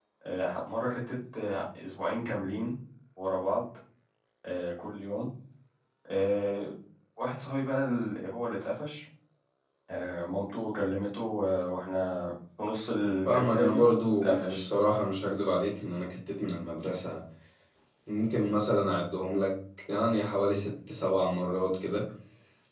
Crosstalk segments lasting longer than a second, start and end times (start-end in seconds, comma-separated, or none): 13.3-14.6